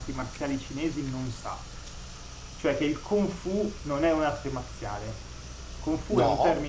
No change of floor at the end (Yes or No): Yes